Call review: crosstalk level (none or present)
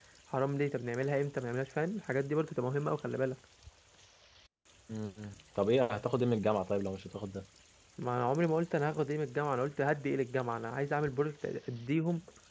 none